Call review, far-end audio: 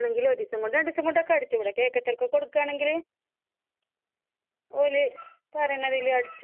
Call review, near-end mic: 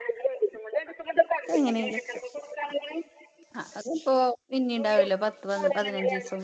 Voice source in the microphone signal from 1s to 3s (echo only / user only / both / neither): both